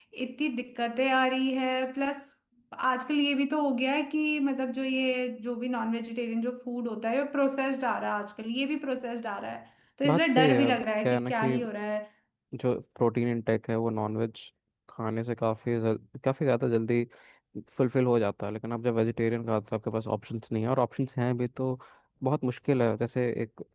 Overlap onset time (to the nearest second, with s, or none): 10 s